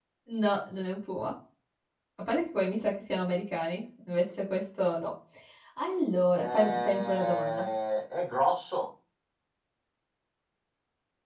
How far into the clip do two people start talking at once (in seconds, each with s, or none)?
6.3 s